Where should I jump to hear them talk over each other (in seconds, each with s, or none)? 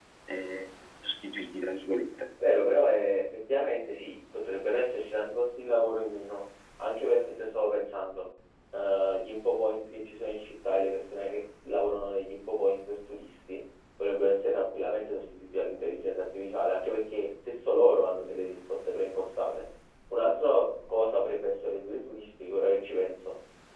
none